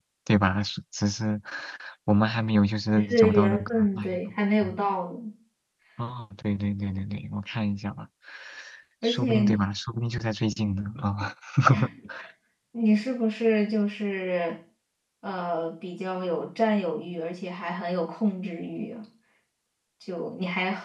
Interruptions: present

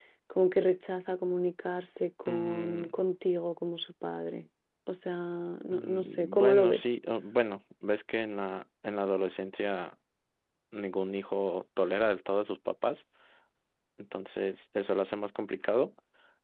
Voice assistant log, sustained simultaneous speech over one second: present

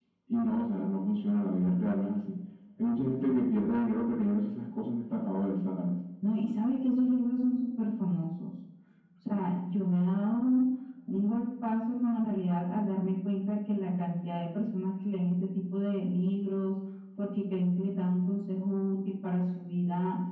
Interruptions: none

